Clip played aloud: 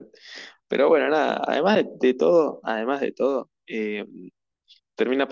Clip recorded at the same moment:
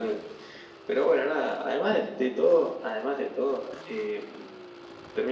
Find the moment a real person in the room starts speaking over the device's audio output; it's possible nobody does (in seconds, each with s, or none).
none